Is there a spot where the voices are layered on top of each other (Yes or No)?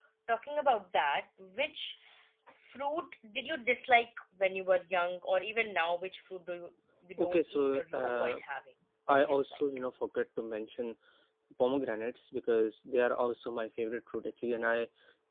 Yes